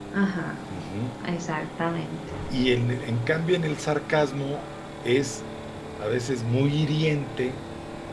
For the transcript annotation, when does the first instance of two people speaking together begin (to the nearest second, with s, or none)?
none